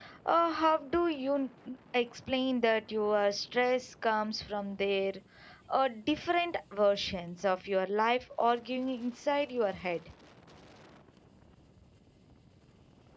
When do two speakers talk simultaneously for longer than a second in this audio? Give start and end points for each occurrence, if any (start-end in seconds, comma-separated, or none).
none